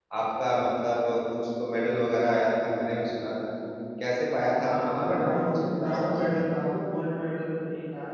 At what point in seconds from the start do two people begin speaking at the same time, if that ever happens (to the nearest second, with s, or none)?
5 s